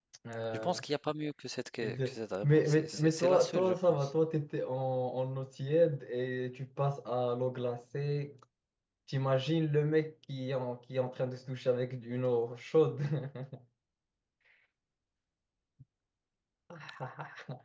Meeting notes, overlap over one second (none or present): present